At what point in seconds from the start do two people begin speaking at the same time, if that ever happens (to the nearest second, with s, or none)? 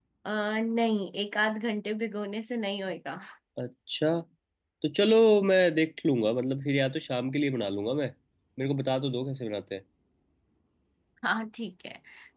none